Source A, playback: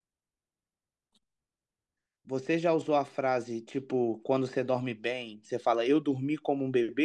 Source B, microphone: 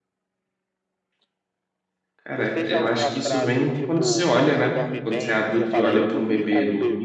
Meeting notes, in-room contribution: present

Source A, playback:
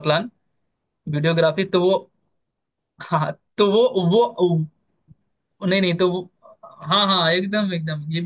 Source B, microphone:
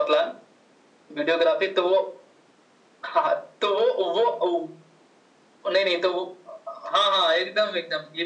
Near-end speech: none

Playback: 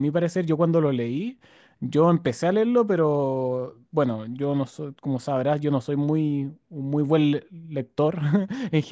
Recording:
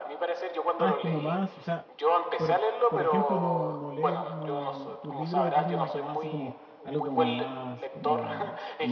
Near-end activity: present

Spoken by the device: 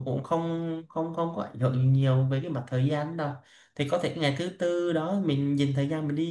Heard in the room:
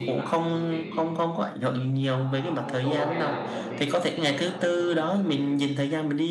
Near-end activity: present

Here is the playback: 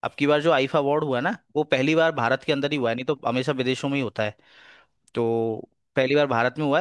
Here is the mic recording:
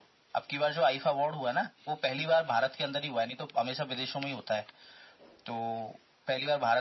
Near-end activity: none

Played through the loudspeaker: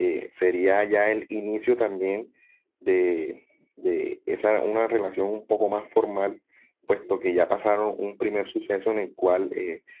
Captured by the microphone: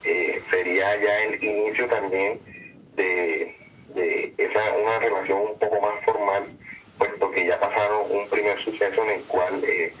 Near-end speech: none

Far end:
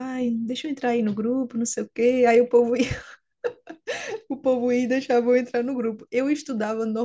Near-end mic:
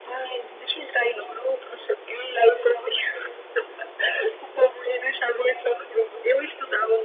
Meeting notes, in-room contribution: none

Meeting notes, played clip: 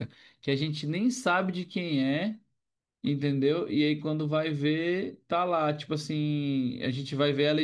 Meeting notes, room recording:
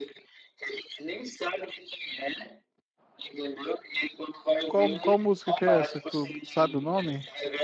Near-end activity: present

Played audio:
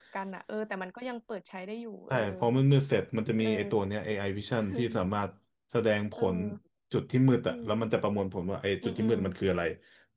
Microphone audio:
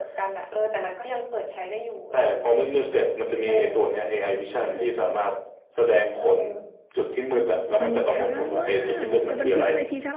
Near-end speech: present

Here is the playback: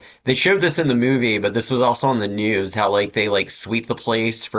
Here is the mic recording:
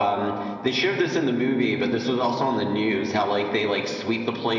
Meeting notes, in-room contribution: none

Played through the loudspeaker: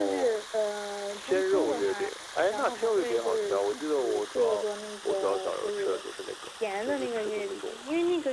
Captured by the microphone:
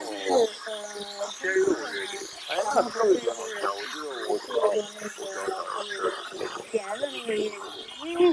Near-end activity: none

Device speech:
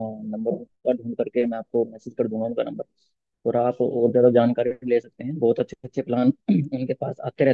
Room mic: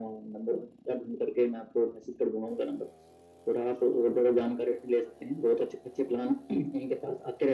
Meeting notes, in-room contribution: none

